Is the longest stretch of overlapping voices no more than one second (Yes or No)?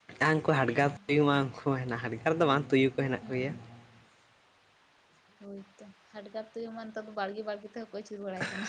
Yes